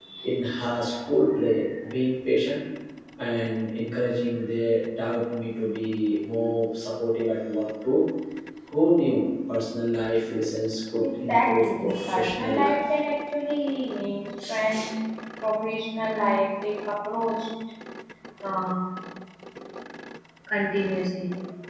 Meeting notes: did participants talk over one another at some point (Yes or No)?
Yes